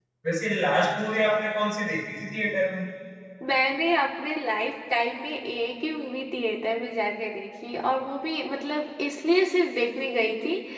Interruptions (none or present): none